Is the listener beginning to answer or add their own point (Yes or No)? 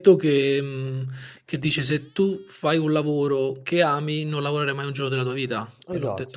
Yes